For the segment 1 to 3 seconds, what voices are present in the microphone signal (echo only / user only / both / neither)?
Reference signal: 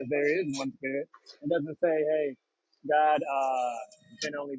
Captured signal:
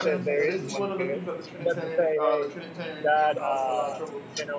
both